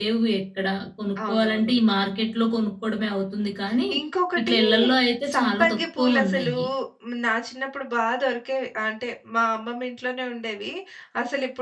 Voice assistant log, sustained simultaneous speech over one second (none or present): present